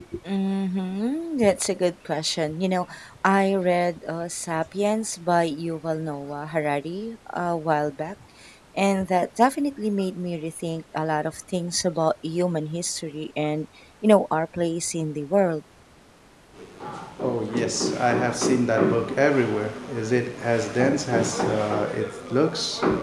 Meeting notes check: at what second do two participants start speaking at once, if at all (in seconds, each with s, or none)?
none